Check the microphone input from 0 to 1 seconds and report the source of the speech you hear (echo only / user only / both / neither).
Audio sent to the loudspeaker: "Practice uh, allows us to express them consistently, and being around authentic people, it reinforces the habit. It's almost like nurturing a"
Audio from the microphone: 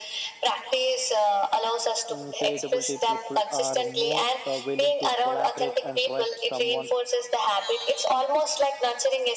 echo only